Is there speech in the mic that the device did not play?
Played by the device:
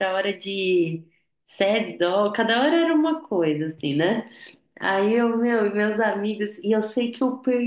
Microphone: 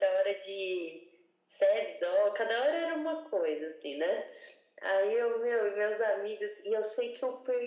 No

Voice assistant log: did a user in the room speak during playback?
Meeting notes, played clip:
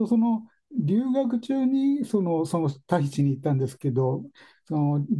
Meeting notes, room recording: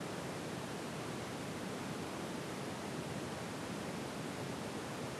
No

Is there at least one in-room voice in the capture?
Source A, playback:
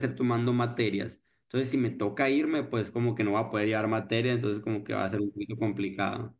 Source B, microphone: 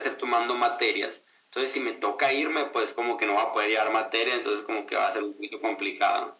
No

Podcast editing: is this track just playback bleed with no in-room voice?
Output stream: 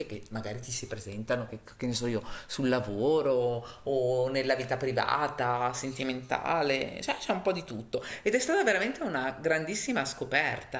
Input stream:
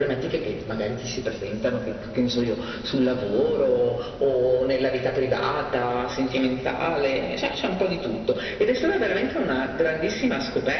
Yes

